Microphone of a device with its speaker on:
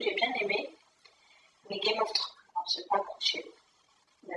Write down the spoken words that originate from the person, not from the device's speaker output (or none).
none